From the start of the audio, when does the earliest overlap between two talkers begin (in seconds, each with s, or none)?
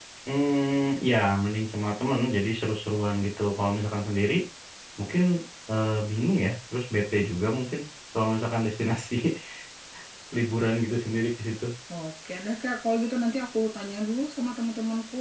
none